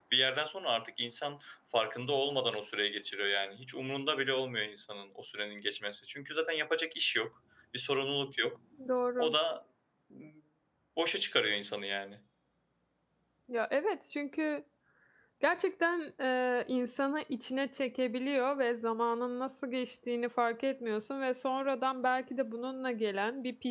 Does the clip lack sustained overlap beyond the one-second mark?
Yes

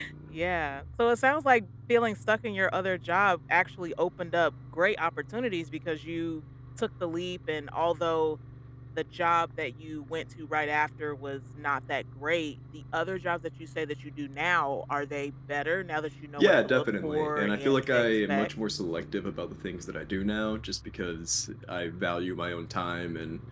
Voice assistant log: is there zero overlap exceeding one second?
No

